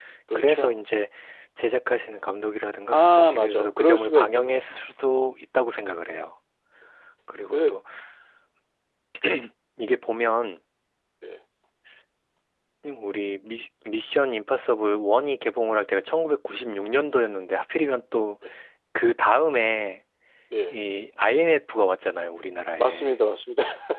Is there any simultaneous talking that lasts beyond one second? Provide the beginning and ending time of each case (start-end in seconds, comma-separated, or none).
2.9-4.6